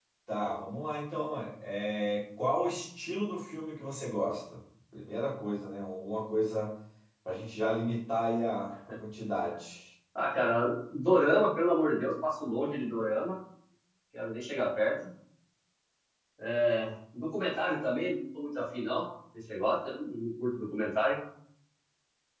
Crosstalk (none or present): none